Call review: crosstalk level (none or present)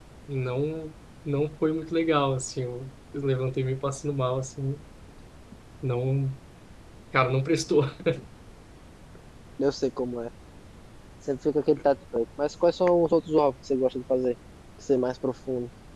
none